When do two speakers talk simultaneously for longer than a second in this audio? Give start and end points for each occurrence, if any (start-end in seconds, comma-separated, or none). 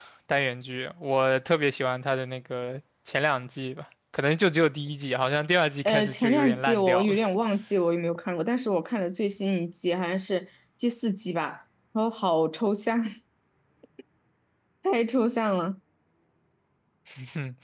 5.8-7.2